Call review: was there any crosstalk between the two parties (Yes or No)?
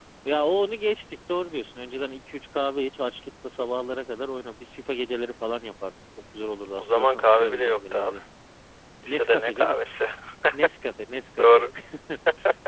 Yes